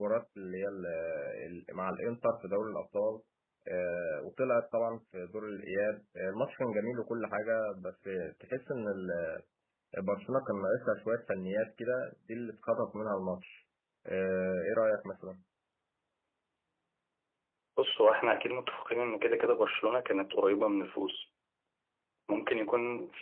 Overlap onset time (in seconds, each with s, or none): none